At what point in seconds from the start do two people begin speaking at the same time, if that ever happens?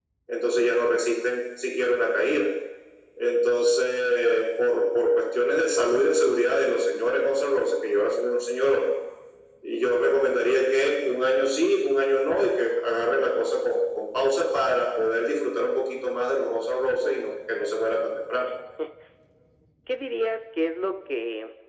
none

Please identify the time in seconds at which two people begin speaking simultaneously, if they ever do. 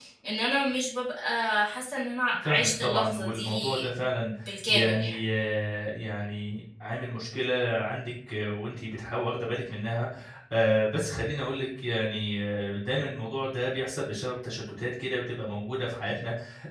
2.4 s

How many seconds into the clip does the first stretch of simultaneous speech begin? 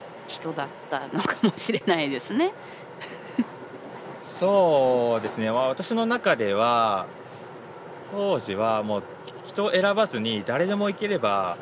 none

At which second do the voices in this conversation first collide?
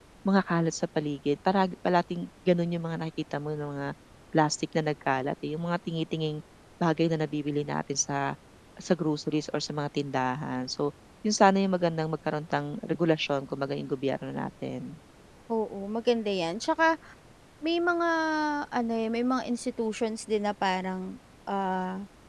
none

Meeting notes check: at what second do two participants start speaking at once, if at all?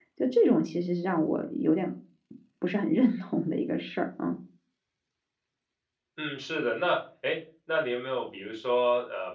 none

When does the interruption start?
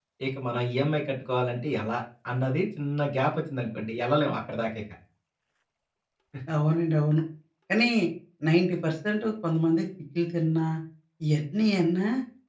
none

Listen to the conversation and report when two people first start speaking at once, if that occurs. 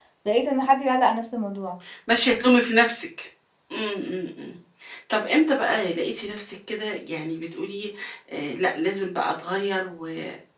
none

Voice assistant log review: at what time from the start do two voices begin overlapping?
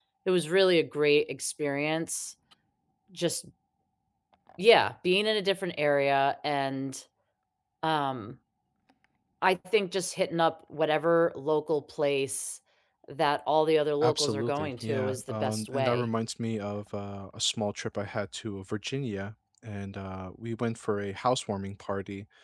14.0 s

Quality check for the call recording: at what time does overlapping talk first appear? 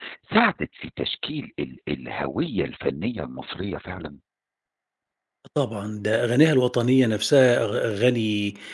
none

